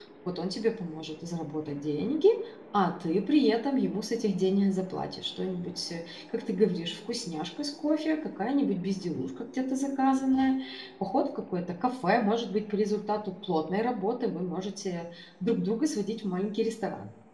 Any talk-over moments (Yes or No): No